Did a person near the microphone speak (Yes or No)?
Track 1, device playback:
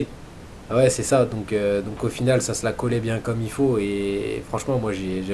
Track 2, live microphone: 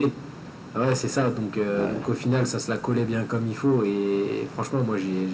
Yes